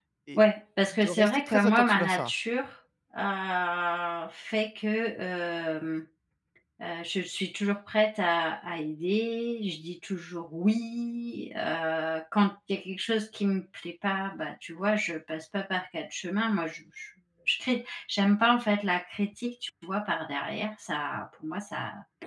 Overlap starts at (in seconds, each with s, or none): 0.9 s